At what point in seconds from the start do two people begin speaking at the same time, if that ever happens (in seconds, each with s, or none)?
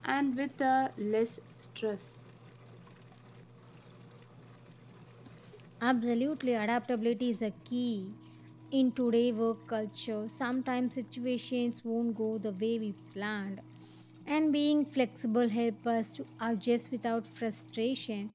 none